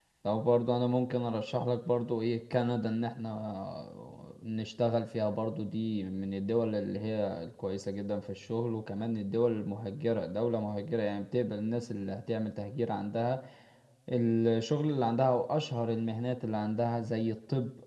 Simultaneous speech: No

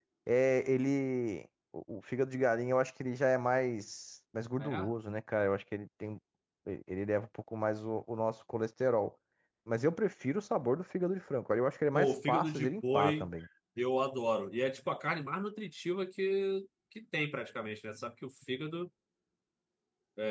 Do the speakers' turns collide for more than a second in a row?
Yes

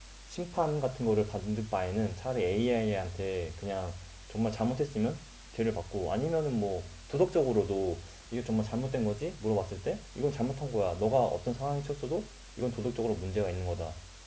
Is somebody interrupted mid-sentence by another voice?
No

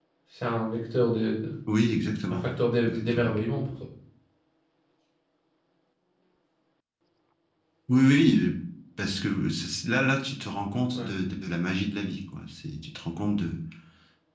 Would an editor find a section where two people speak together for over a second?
No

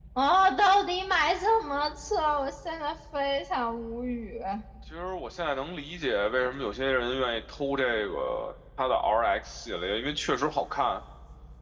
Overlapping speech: No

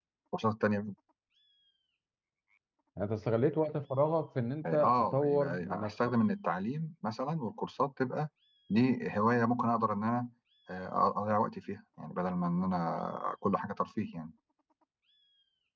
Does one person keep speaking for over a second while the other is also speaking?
Yes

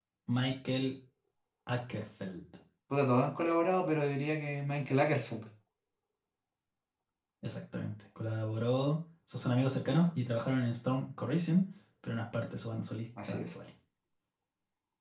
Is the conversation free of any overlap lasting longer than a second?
Yes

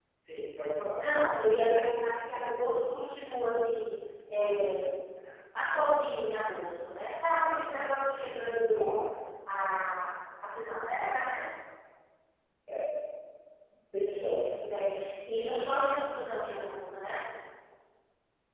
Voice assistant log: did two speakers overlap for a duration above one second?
No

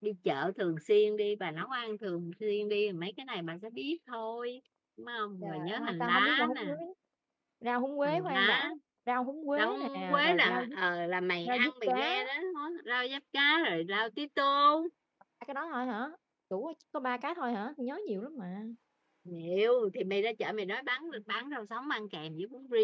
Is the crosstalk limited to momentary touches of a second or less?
No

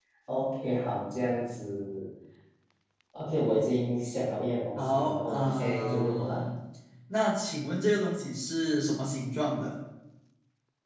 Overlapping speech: Yes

